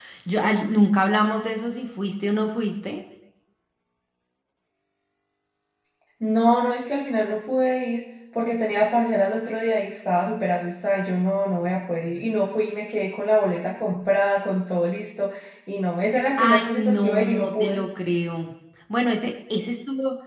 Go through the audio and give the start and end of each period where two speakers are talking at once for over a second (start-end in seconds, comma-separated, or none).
16.4-17.8